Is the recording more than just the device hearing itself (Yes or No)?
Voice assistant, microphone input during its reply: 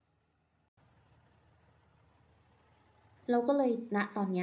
Yes